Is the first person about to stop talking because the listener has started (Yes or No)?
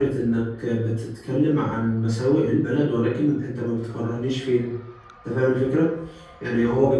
No